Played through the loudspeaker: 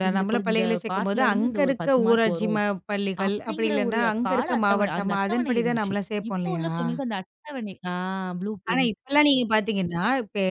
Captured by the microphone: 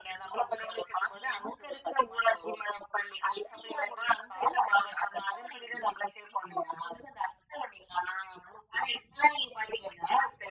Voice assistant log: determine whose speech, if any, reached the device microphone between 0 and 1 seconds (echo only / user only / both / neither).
echo only